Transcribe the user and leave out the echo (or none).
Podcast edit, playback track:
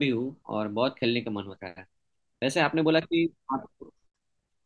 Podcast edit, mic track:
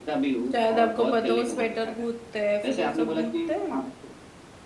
शायद आपको पता है, वो स्वेटर गूंथते हैं फिर वो सब गूंथते हैं ना,